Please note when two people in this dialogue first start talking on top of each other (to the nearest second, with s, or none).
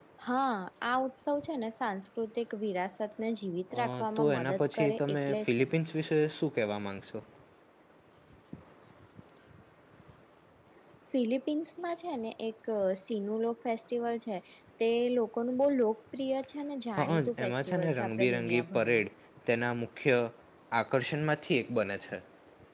4 s